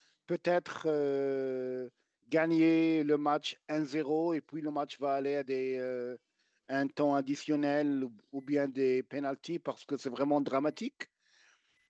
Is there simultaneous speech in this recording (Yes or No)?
No